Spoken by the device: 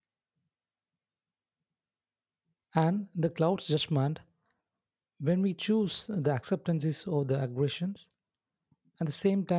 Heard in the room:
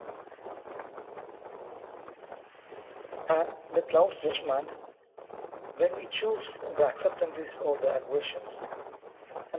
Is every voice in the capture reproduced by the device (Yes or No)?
Yes